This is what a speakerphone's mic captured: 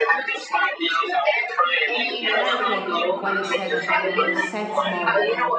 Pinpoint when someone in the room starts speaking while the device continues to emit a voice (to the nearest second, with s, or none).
2 s